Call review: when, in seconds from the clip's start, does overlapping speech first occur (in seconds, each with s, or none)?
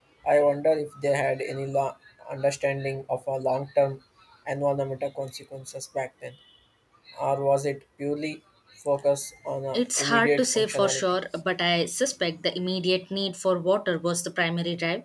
9.7 s